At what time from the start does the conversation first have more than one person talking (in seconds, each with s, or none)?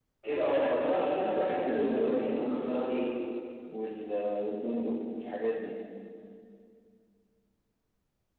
1.2 s